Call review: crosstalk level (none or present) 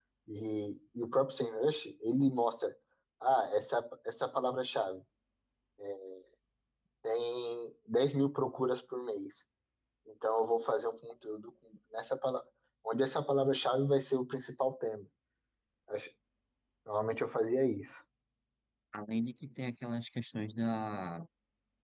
none